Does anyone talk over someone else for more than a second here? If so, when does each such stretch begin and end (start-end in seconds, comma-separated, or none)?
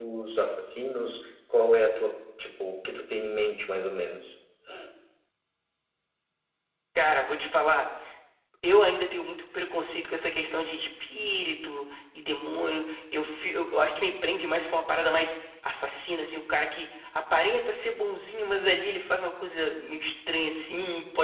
none